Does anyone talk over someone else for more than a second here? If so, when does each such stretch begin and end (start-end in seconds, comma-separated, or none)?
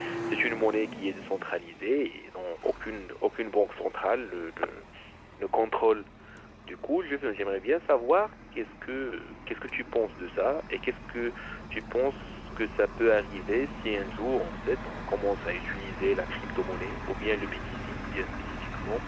none